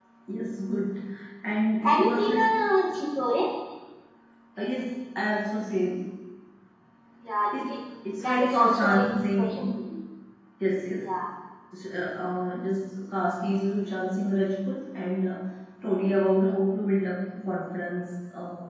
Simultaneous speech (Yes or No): Yes